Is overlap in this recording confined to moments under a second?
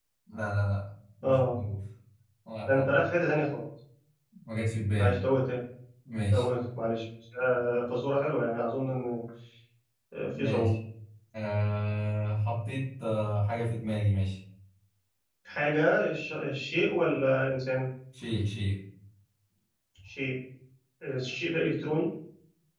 Yes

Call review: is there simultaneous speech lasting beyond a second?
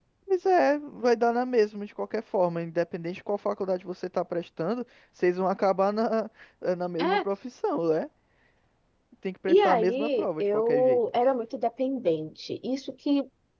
Yes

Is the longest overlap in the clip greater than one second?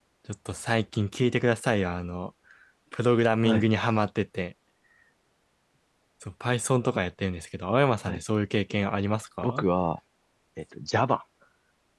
No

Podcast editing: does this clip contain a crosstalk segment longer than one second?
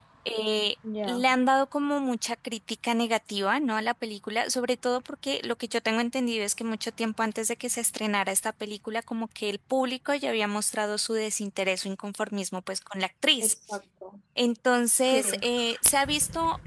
No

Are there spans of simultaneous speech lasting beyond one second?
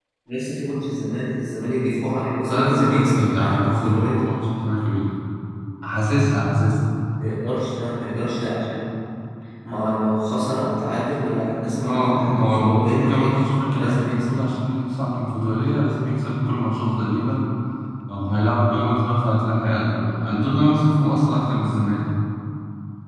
Yes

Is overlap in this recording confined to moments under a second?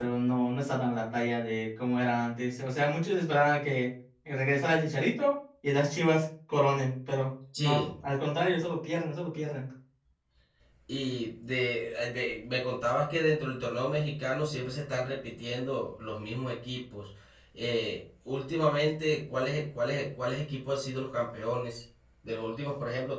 Yes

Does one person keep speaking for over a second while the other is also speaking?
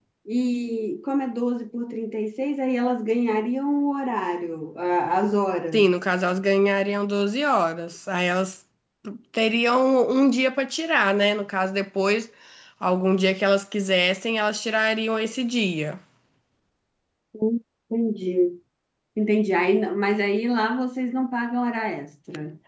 No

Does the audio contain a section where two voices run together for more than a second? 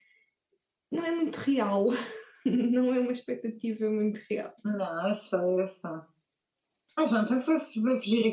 No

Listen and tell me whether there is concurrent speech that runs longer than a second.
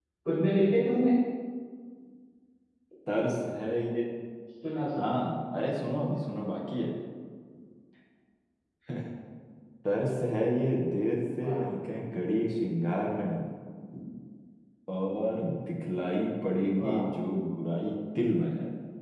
No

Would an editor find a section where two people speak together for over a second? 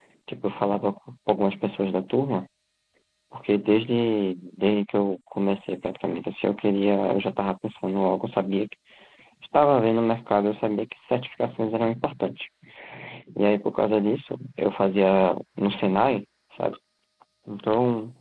No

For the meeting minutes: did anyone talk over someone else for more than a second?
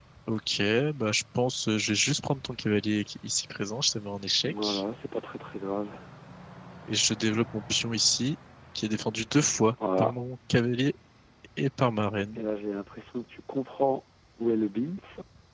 No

